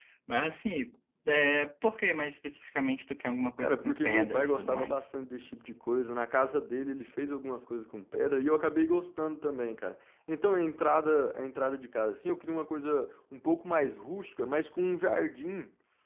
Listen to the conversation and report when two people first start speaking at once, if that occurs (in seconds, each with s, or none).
3.6 s